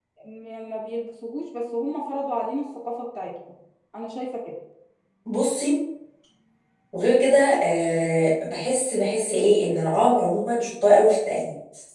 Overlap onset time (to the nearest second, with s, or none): none